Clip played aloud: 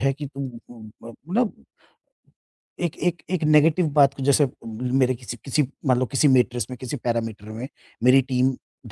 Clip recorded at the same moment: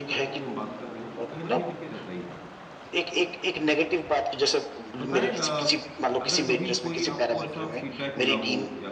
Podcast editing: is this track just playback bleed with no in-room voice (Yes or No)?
No